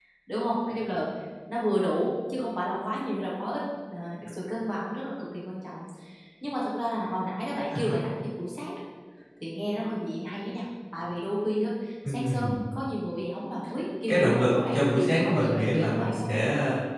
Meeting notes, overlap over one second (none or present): present